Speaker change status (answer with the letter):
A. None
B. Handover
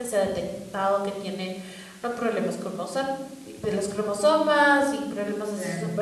A